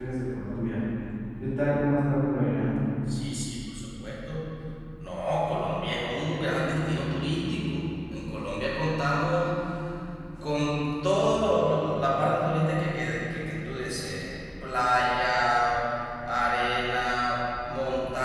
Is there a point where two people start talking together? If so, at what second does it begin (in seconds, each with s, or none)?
none